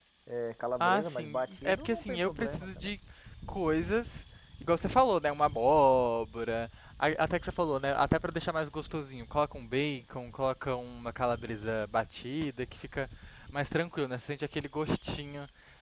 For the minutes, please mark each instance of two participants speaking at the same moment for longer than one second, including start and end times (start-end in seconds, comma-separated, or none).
0.8-2.9